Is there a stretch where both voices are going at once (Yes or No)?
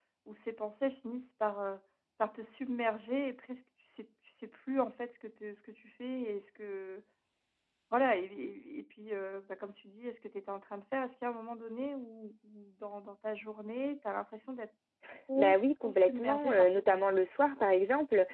Yes